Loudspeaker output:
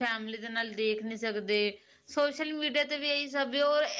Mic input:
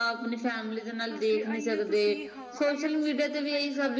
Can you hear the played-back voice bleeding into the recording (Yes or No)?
Yes